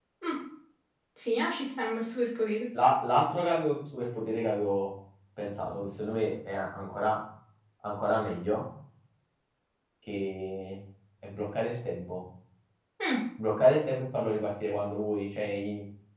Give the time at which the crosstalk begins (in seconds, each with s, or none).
none